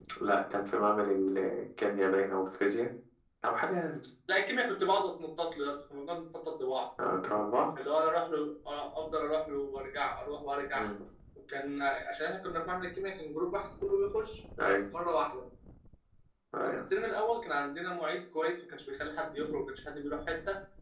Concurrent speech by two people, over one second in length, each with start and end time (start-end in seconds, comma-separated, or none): none